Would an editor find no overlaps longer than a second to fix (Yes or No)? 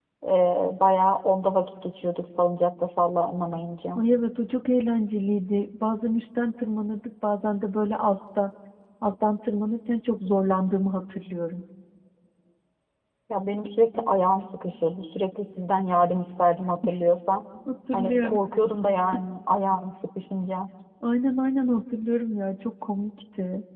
Yes